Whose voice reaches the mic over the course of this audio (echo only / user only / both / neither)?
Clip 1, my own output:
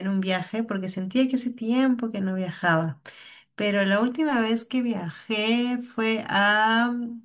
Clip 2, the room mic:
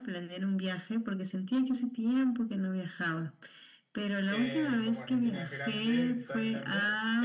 both